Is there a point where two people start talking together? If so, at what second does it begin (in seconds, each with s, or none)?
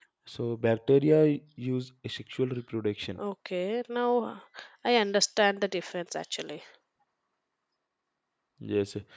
none